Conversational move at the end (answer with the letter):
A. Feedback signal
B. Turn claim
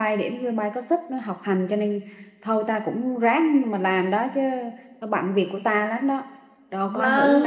B